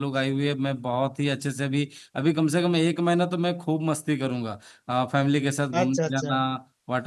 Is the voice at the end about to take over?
No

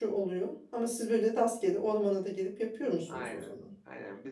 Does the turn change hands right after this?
Yes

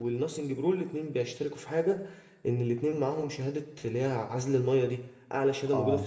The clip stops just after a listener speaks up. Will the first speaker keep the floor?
Yes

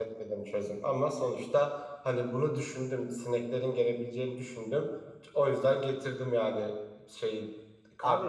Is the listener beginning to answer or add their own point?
Yes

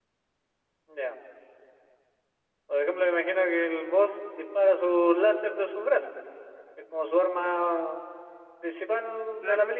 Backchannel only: No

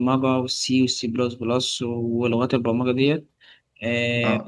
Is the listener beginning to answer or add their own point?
Yes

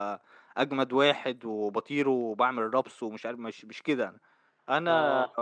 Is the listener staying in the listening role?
Yes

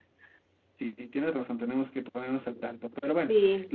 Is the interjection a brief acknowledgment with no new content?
Yes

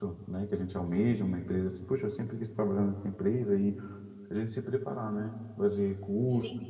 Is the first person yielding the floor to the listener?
No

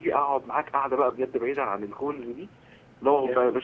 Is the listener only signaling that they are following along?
Yes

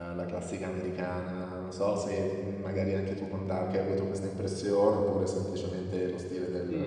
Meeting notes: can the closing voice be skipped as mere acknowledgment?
No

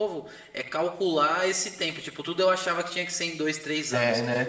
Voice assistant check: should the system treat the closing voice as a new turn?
No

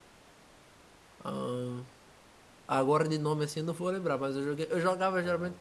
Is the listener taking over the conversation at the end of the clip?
No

